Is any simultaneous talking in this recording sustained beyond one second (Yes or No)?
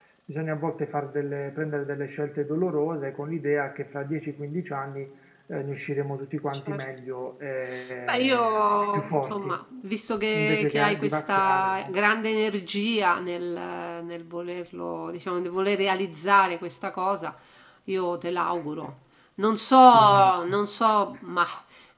Yes